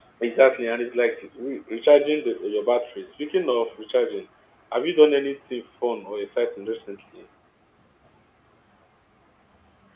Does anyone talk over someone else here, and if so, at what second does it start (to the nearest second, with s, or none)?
none